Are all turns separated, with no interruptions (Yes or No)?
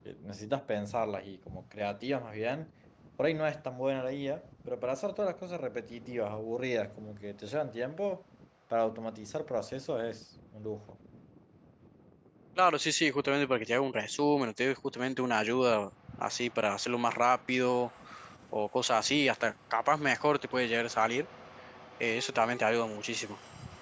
Yes